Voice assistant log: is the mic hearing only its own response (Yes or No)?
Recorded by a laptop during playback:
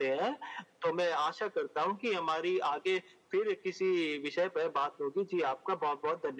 Yes